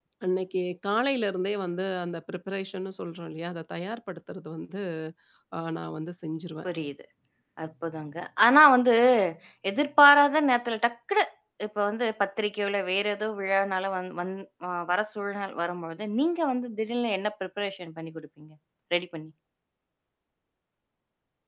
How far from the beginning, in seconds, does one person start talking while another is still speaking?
none

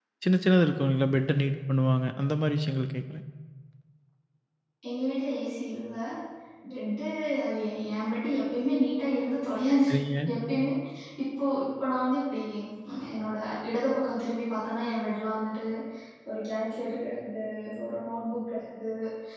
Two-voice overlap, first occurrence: none

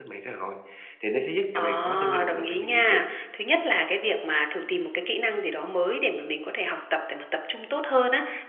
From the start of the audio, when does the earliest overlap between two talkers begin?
1.6 s

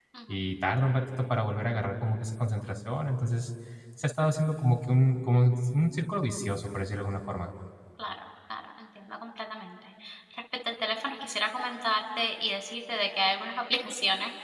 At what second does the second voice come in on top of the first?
none

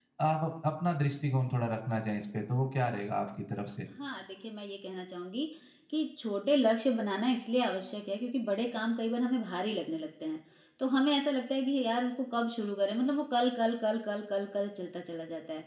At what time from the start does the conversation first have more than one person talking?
none

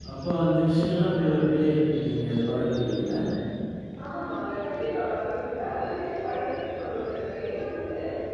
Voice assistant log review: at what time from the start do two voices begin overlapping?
none

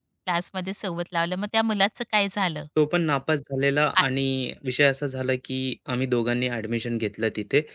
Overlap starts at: none

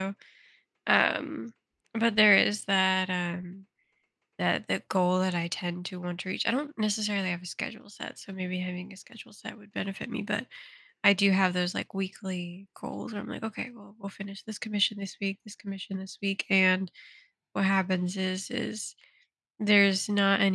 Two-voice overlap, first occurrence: none

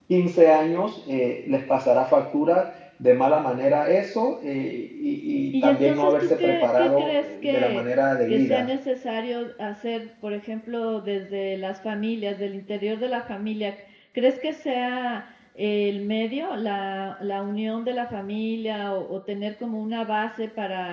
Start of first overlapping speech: 5.6 s

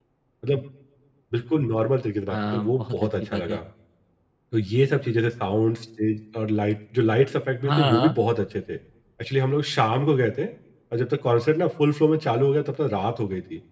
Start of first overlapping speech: 2.3 s

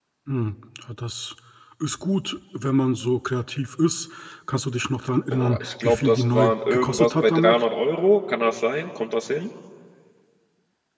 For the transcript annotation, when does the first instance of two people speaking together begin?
5.3 s

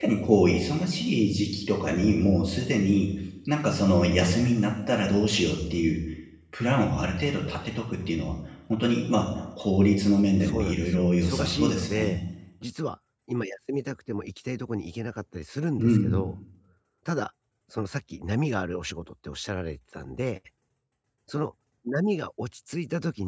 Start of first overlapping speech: 10.4 s

